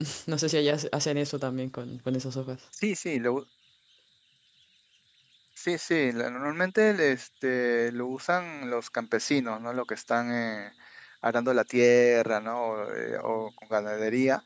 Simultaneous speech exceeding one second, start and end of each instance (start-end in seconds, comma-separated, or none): none